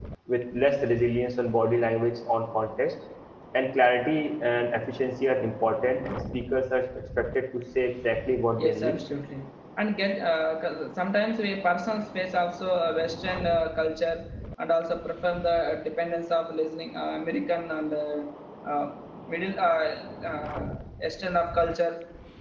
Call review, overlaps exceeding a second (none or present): none